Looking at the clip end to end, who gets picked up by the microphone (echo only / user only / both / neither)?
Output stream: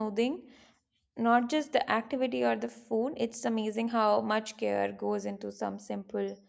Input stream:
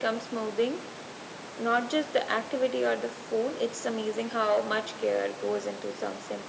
echo only